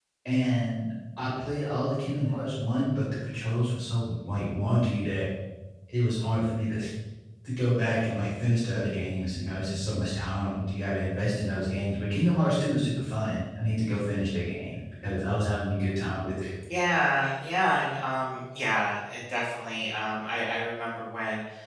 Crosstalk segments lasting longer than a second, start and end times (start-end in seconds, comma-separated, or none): none